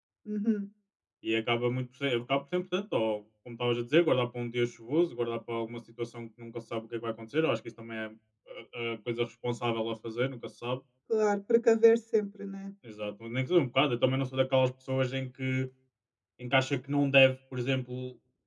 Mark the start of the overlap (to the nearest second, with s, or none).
none